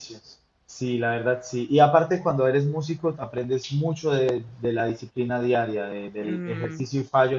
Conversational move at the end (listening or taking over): listening